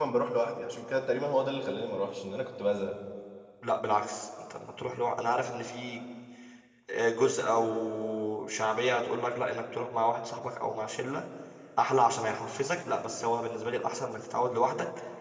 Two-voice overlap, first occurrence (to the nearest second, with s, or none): none